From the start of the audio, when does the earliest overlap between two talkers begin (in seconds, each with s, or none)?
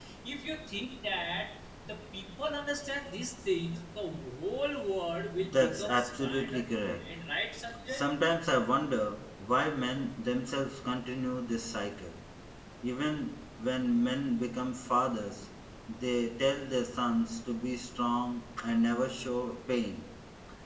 5.4 s